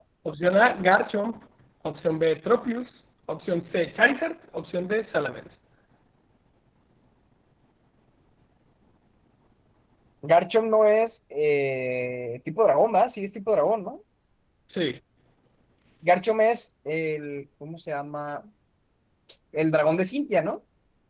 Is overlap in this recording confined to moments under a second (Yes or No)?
Yes